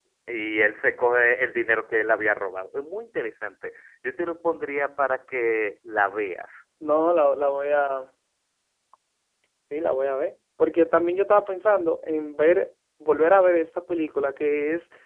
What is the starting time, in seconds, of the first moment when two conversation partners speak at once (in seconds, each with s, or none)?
none